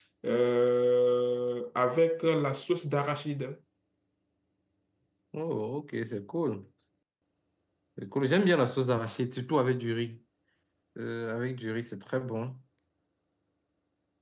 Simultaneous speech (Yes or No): No